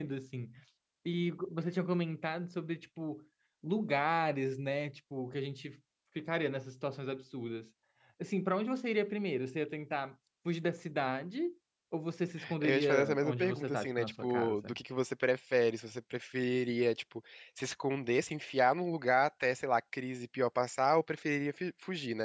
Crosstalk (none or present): present